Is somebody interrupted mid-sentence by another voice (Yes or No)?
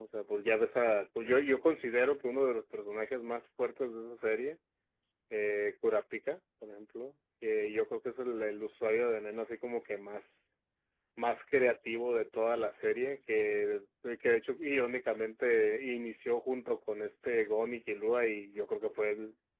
No